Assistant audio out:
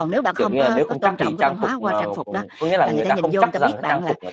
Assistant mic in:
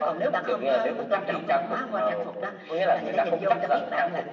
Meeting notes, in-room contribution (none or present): none